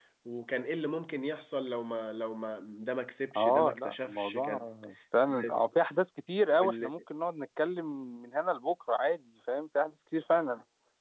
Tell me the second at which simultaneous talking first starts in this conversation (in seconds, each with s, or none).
3.4 s